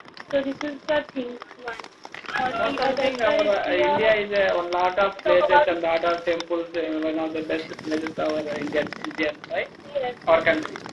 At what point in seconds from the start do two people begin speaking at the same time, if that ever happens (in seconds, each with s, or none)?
2.6 s